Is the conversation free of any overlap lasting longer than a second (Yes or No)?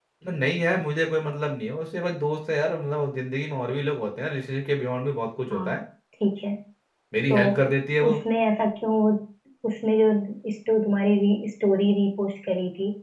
Yes